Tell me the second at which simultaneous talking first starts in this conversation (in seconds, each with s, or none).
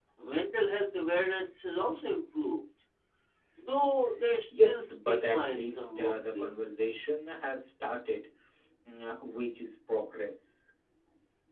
4.5 s